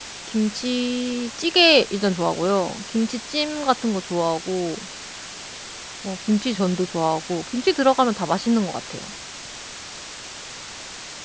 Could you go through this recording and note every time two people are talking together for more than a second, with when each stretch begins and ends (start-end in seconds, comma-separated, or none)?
none